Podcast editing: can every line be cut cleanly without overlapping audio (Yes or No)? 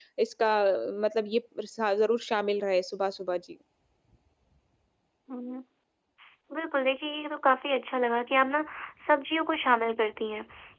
Yes